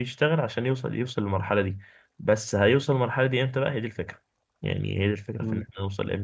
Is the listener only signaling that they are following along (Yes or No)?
Yes